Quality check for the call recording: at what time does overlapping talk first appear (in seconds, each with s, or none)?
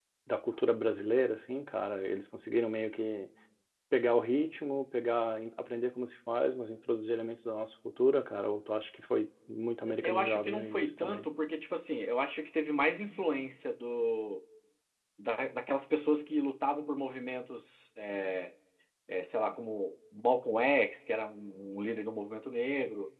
9.8 s